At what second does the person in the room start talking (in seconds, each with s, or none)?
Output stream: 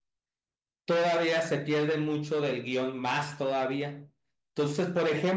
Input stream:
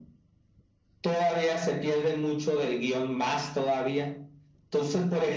none